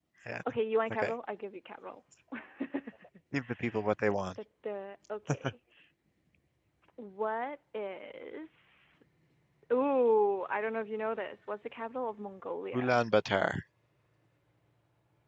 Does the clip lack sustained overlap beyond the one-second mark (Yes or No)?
Yes